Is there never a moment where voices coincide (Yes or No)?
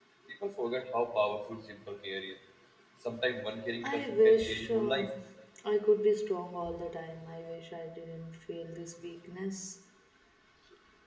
No